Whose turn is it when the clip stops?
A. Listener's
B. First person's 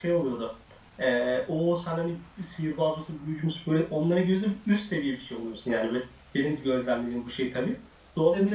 B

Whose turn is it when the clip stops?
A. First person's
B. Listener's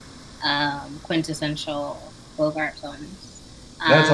B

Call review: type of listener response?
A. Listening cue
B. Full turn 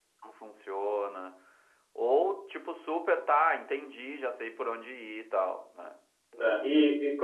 B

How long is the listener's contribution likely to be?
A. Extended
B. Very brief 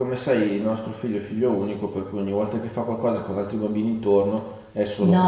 A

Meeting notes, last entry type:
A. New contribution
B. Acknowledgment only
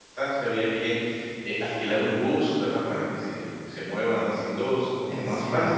B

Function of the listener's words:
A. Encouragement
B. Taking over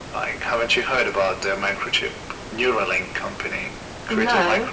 A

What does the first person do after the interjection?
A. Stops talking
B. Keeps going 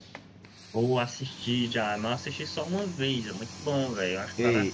A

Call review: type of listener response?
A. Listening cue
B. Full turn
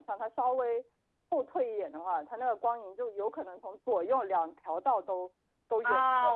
B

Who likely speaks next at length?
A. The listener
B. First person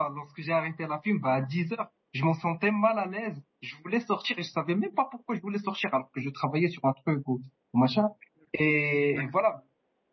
B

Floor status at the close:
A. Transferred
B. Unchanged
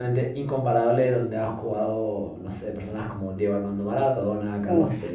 B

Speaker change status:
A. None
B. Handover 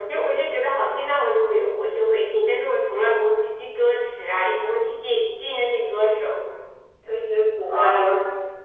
B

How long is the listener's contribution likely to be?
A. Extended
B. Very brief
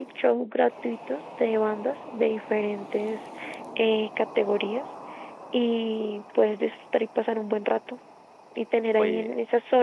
B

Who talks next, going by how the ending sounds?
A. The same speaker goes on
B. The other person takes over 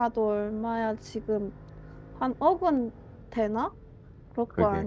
B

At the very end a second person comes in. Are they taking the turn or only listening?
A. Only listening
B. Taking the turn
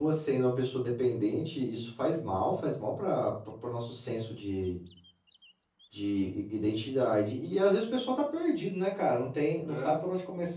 A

